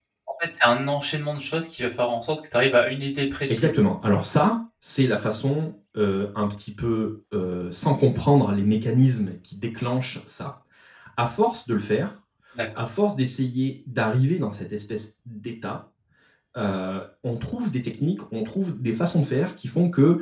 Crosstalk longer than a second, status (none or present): none